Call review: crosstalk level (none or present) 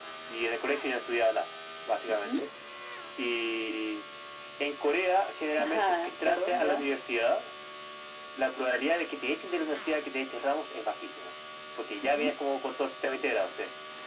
present